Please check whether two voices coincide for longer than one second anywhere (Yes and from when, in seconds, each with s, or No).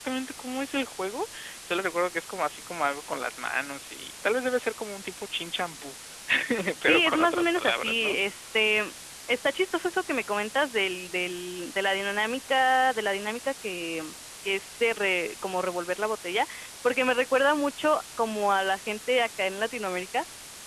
Yes, from 6.8 s